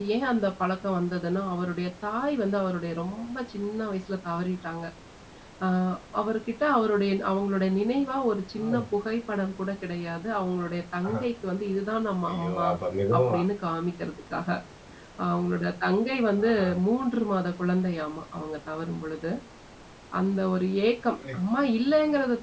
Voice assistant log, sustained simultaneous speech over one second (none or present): none